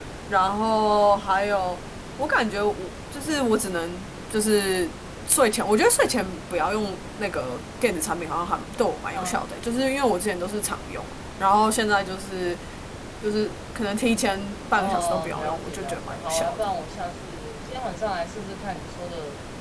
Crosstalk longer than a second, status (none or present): present